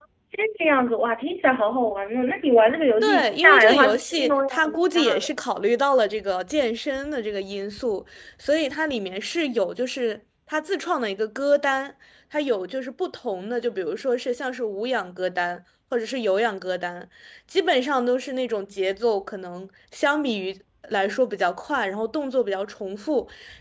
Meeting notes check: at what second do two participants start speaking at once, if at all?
3 s

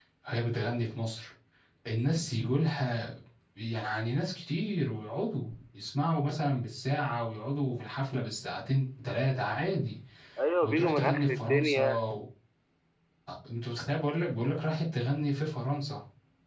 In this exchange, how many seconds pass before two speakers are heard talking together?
11 s

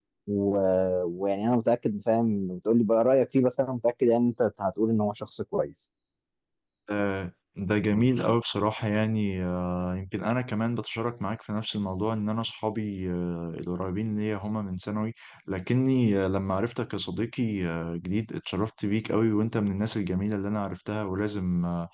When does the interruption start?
none

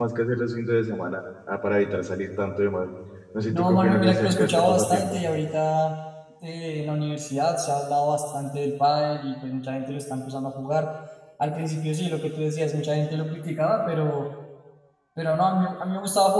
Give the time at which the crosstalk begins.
4 s

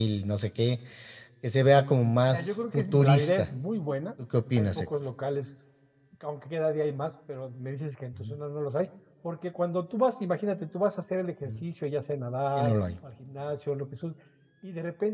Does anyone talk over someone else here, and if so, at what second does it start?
2 s

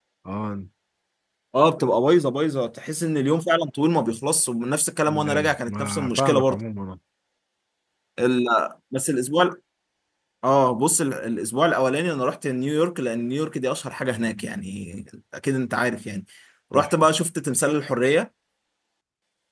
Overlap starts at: 5 s

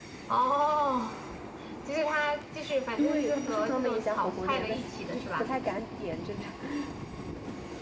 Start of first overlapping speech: 3 s

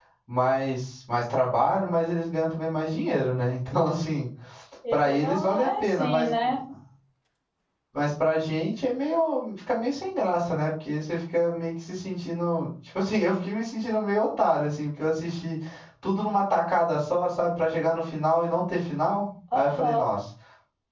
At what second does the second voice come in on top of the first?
5 s

